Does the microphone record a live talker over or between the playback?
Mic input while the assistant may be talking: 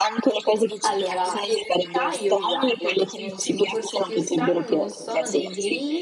Yes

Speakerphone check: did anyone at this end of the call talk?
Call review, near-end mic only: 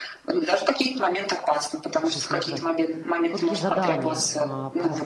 Yes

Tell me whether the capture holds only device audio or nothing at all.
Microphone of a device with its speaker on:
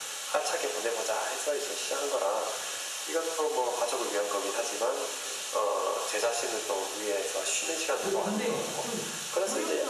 No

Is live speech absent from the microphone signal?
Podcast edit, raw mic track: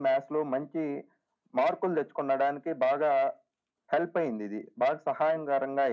Yes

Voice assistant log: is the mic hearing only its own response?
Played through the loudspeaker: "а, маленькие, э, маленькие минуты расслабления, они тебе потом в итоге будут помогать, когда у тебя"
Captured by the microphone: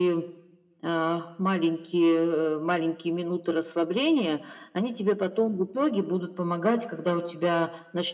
Yes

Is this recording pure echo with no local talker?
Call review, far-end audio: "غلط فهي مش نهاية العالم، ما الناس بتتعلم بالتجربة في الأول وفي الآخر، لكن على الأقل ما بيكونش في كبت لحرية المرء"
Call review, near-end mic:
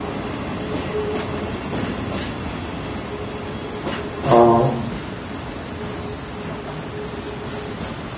No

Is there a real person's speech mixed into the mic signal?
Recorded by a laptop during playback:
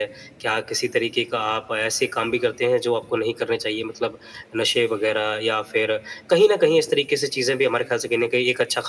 No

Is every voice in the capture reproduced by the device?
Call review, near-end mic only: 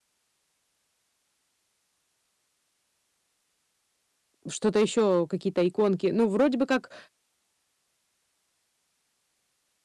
No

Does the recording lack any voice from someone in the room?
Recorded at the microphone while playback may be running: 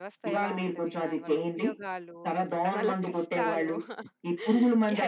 No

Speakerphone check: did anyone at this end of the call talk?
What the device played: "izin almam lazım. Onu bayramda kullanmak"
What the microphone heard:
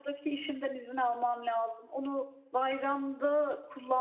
No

